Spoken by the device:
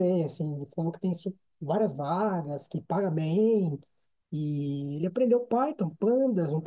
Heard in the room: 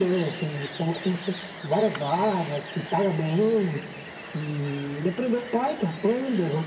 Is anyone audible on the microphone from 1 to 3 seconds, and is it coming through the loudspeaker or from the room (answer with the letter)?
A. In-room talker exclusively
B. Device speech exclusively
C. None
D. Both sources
B